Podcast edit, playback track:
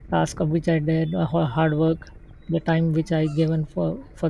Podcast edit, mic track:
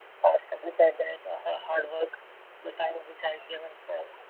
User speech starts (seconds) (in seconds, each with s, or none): none